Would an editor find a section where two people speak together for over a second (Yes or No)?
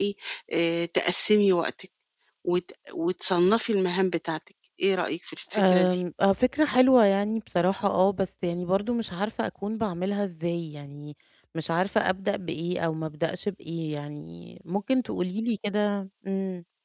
No